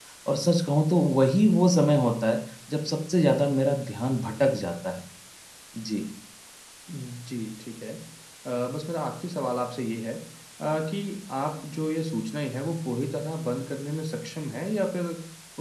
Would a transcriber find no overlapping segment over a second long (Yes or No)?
Yes